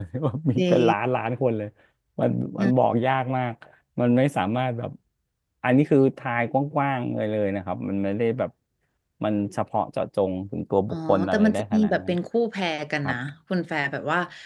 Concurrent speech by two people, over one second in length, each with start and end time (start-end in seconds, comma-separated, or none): 10.9-12.1